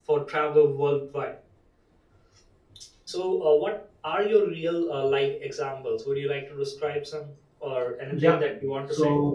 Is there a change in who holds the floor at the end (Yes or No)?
Yes